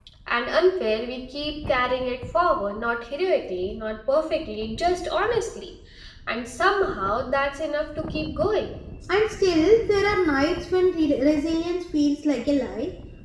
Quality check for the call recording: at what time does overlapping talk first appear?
none

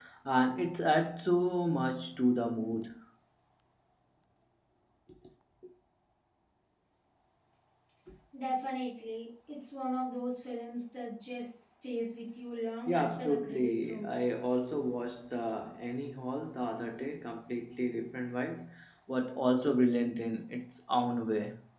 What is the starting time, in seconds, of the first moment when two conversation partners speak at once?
12.9 s

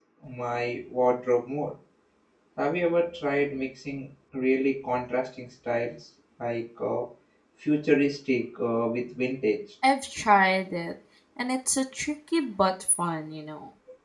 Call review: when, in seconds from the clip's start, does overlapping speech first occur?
none

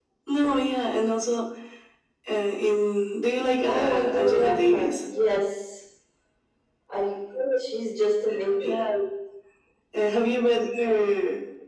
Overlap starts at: 3.6 s

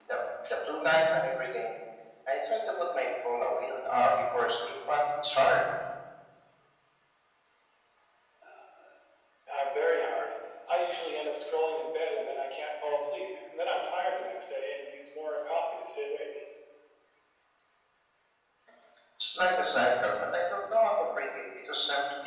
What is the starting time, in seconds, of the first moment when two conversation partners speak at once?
none

